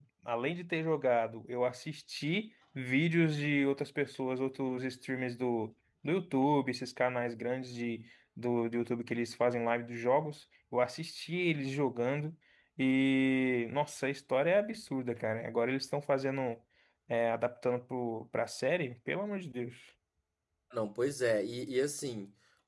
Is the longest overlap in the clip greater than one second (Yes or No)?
No